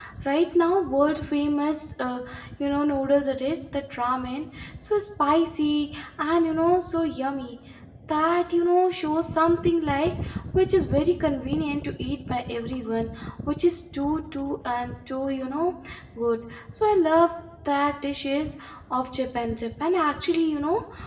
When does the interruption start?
none

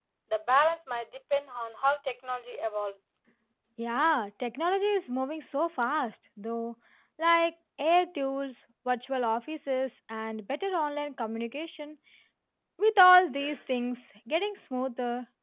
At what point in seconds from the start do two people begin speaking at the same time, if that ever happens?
none

